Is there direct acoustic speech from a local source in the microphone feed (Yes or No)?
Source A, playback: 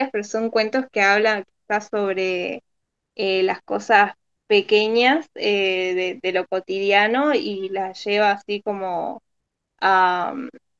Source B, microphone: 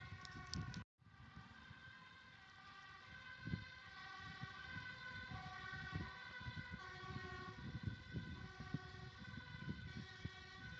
No